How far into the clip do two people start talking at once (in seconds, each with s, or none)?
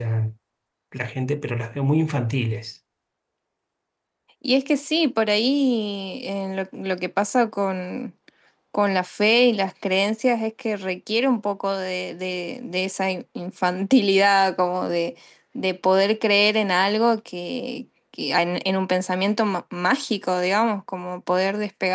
none